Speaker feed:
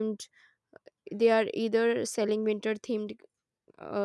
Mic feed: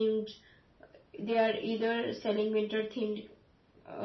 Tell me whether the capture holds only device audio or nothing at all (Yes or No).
Yes